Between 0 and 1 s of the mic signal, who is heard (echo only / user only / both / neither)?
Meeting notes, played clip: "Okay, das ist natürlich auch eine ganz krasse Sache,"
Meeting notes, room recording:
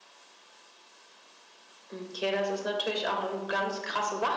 neither